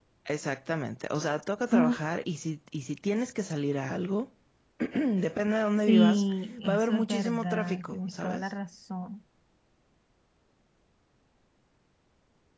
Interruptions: present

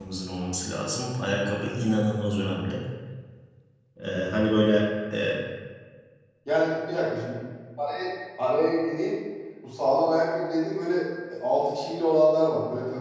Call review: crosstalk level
none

